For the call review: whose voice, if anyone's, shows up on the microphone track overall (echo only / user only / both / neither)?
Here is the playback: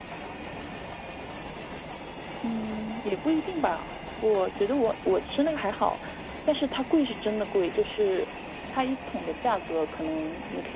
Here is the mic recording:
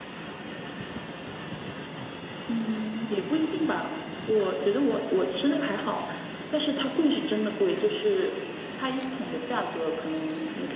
echo only